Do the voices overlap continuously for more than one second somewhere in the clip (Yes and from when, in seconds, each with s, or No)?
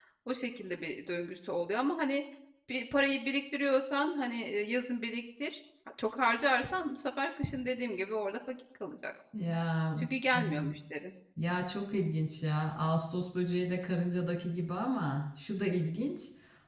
No